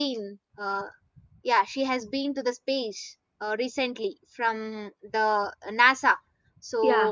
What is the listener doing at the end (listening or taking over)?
listening